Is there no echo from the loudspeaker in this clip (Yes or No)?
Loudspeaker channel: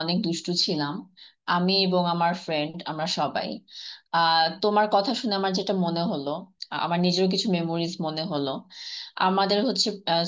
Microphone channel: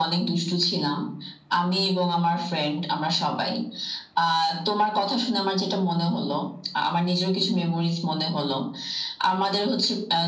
No